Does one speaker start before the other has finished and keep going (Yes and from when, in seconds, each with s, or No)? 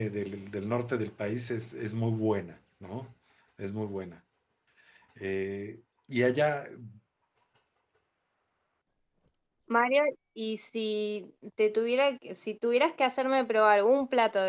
No